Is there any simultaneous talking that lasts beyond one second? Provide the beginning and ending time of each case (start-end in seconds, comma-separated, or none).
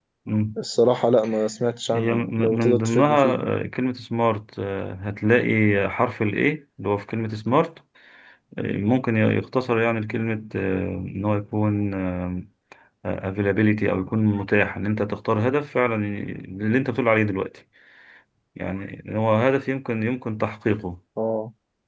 1.9-3.2